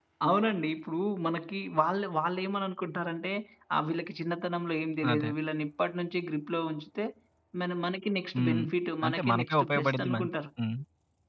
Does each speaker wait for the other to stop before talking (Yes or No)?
No